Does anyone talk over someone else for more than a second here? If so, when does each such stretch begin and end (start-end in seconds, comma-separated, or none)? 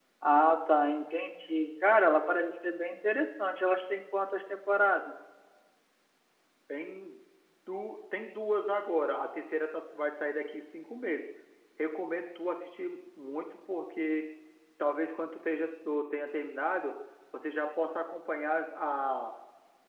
none